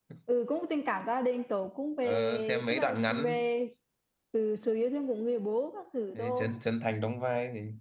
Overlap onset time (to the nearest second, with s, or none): 2 s